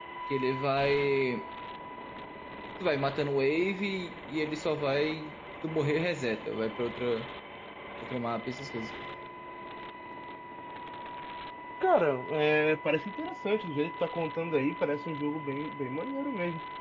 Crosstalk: none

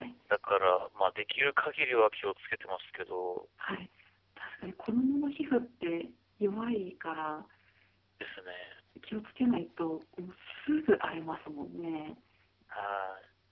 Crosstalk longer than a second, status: none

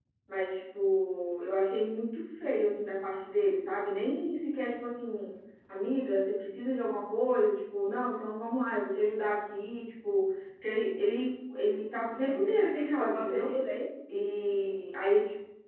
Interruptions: present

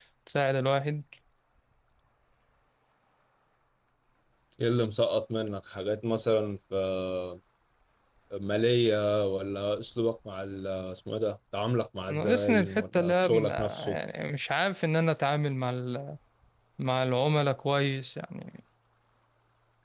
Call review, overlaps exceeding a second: present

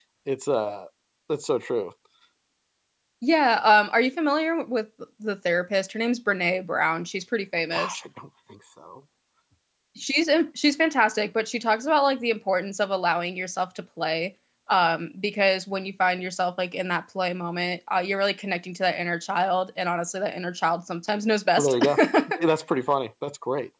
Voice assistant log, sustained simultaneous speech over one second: none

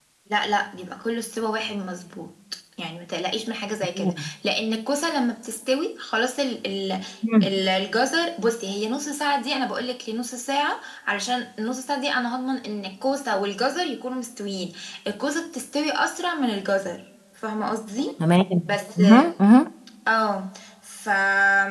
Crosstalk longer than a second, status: none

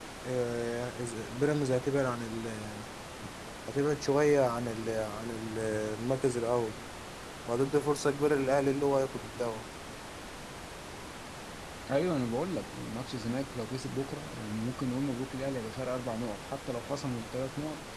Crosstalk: none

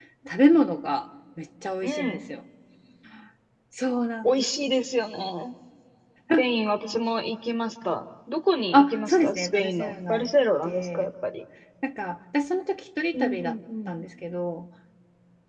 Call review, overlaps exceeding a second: present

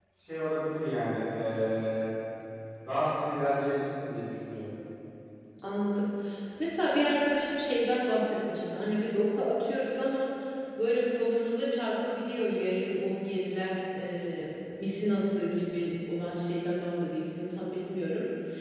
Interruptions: none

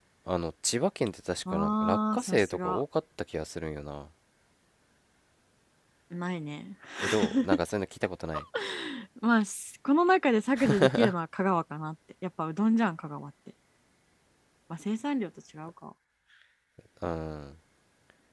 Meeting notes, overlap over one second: present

